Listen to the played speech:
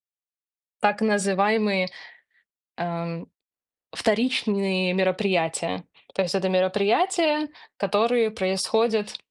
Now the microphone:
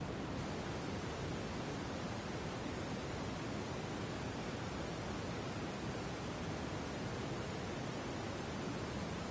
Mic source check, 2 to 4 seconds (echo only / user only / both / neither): neither